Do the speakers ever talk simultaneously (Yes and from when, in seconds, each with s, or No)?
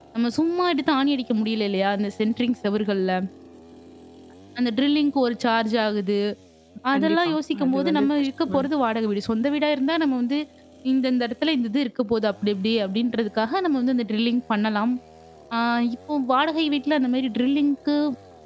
Yes, from 6.9 s